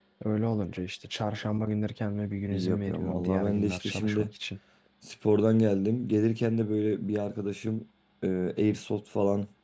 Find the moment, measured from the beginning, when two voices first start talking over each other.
2.5 s

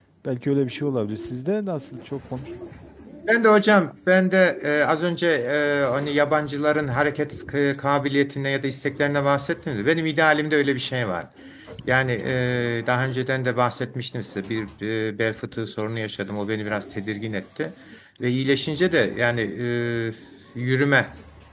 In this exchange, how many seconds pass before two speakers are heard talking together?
none

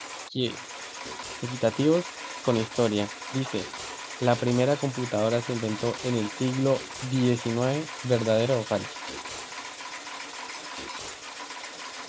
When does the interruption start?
none

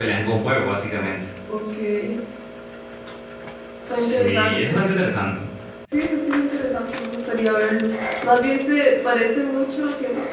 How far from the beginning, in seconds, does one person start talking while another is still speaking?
3.9 s

